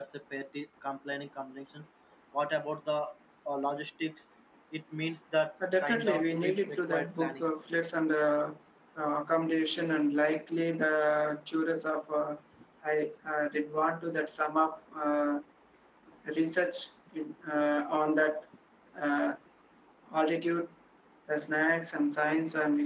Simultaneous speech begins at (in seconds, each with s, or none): 5.6 s